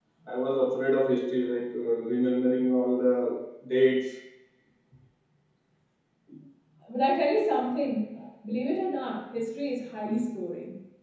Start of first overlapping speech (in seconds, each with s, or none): none